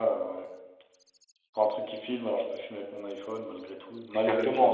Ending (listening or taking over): taking over